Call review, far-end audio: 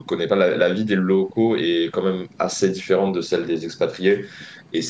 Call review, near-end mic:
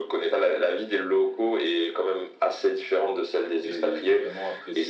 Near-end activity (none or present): present